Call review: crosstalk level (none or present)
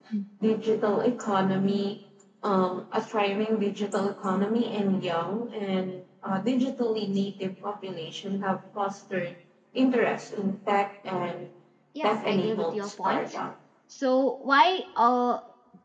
present